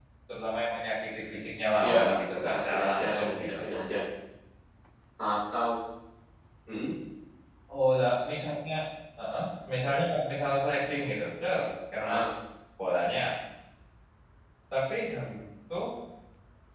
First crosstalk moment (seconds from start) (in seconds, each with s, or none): 1.8 s